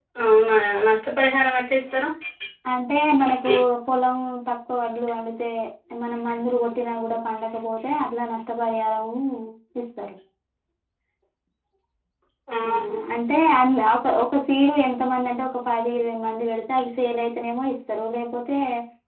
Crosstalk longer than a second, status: none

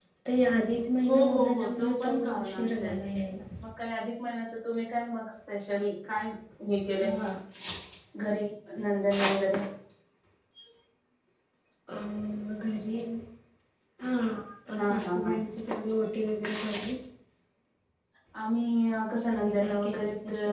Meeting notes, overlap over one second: present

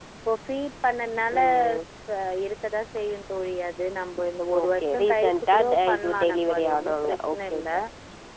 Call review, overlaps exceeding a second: present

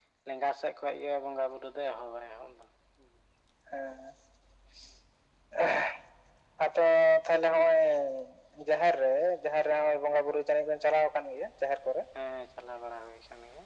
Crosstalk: none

